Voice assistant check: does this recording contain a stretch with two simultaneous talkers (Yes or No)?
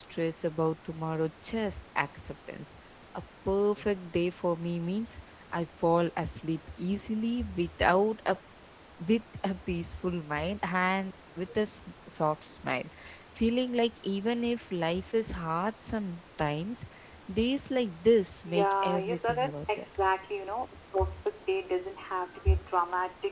Yes